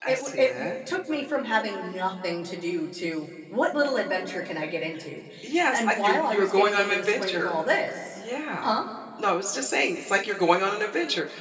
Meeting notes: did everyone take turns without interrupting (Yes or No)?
No